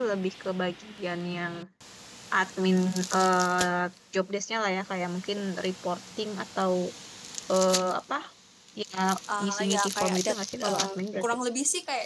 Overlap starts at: 9.4 s

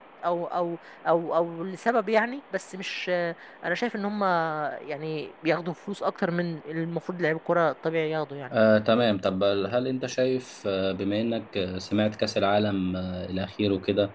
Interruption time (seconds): none

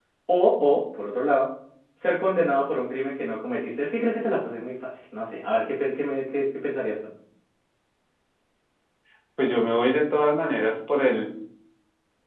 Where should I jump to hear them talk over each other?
none

